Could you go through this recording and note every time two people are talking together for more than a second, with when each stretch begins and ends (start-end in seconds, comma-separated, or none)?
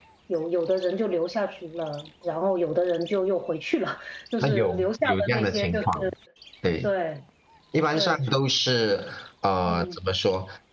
4.4-5.9